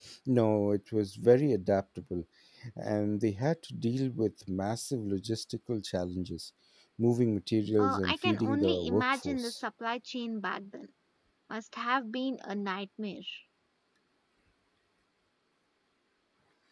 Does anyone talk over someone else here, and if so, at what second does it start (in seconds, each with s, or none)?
7.8 s